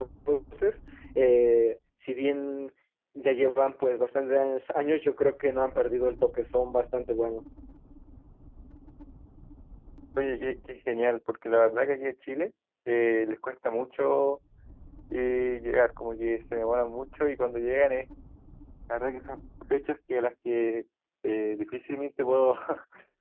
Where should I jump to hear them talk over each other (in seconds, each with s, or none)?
none